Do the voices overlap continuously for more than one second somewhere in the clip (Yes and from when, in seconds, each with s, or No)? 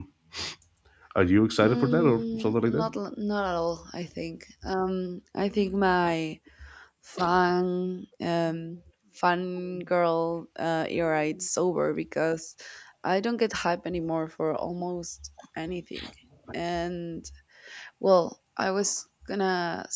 Yes, from 1.6 s